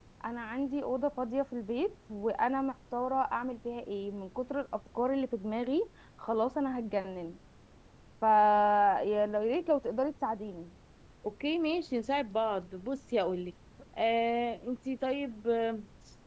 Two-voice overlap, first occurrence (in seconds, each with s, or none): none